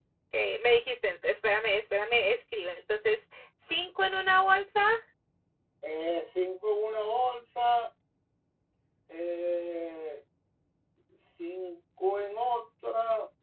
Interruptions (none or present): none